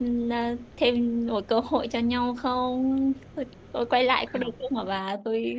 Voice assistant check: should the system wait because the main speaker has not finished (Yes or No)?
Yes